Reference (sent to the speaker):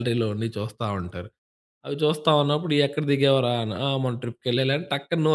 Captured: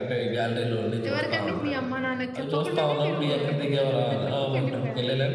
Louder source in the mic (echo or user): echo